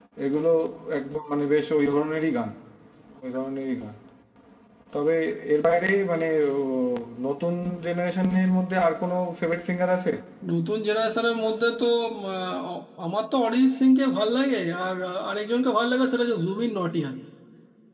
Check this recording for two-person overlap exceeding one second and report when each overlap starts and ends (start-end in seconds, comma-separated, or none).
none